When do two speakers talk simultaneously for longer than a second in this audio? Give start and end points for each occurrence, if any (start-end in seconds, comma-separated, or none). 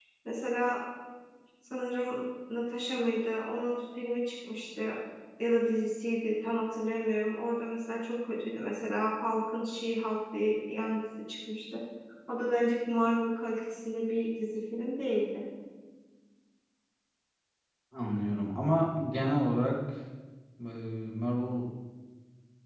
none